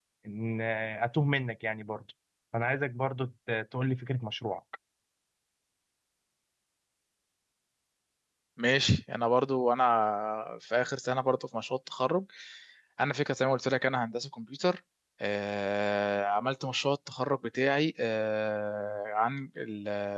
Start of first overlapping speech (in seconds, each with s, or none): none